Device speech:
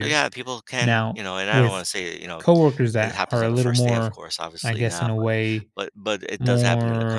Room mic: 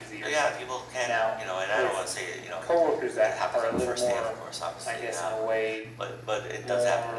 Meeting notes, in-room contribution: none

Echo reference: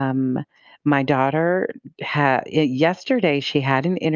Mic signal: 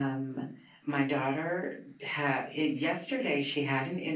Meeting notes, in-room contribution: none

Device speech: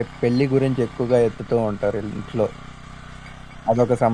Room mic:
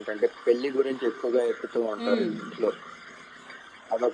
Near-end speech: present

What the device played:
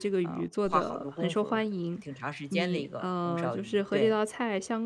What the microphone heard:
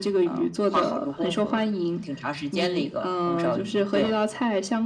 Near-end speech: none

